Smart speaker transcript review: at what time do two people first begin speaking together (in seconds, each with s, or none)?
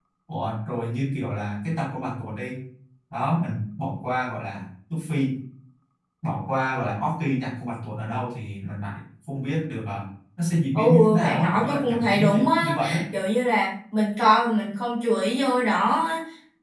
10.8 s